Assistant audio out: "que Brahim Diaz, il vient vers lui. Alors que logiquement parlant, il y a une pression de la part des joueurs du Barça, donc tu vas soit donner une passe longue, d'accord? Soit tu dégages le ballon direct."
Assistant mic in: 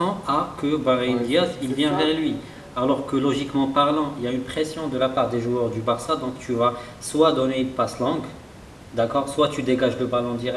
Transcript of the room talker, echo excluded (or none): Ouais, c'est c'est ça, qui-